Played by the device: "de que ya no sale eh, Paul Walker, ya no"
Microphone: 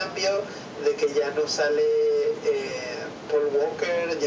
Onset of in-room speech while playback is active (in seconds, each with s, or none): none